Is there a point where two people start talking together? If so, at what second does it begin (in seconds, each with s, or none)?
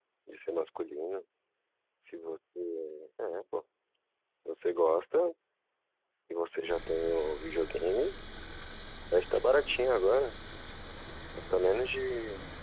none